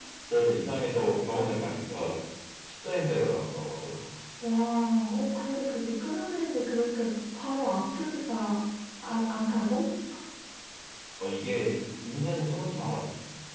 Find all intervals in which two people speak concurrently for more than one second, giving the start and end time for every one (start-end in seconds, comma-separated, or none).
none